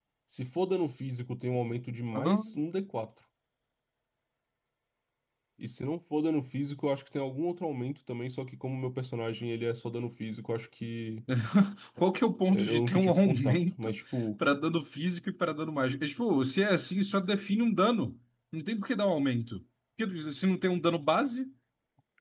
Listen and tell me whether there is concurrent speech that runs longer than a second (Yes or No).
Yes